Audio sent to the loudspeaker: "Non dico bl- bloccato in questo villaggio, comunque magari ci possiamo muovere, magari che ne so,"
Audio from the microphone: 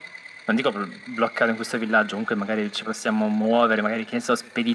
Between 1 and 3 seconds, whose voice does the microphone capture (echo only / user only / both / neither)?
echo only